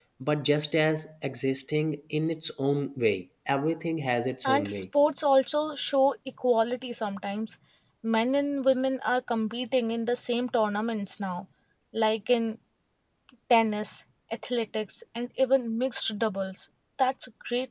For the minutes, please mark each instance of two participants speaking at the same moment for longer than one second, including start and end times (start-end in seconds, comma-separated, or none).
none